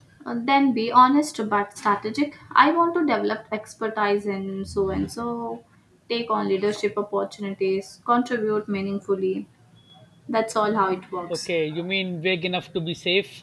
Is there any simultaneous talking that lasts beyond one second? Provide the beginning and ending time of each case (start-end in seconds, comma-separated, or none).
none